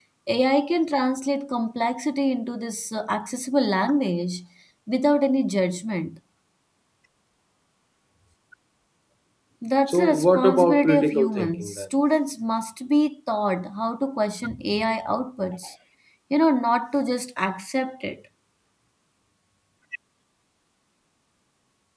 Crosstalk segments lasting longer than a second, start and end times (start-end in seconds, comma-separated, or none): 9.9-11.8